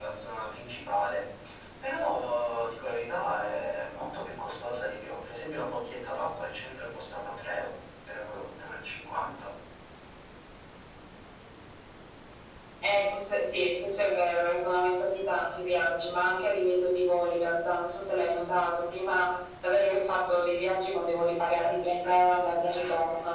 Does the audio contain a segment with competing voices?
Yes, from 21.5 s

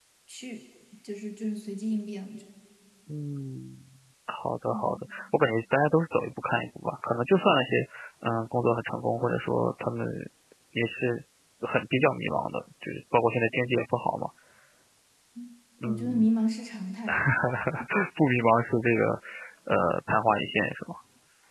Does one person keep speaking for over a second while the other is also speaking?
No

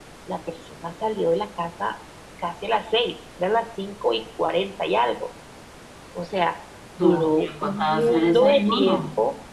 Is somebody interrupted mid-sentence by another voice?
Yes, from 7.0 s

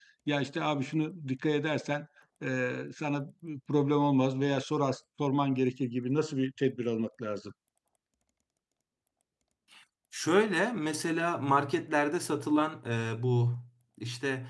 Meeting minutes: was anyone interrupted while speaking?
No

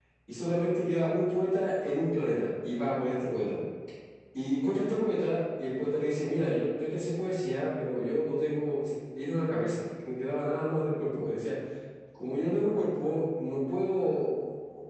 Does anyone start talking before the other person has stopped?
No

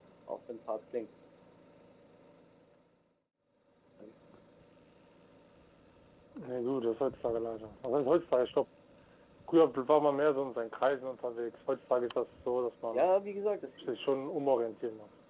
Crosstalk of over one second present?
No

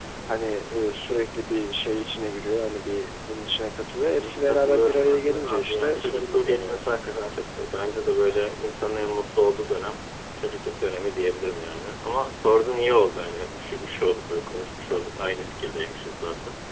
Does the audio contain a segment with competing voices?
Yes, from 4.1 s

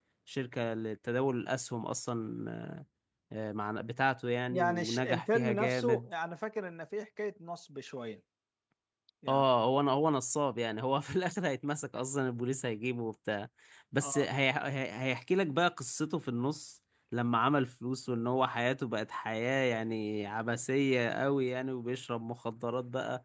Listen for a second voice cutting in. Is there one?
Yes, from 4.5 s

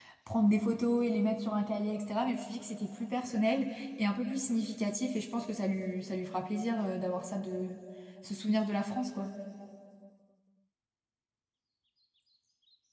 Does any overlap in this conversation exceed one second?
No

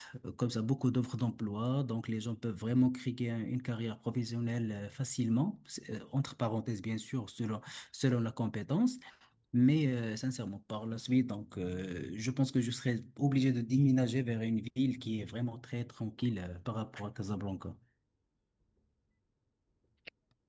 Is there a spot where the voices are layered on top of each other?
No

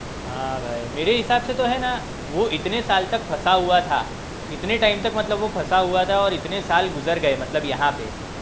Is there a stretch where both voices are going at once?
No

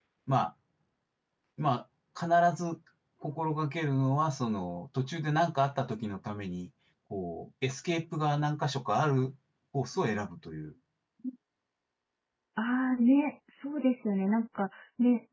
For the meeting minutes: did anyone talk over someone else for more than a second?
No

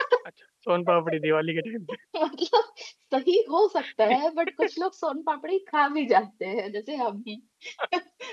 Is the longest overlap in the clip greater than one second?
No

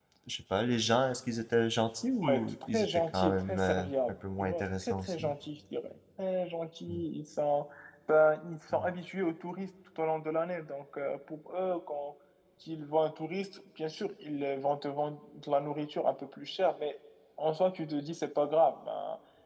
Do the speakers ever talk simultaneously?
Yes, from 2.2 s

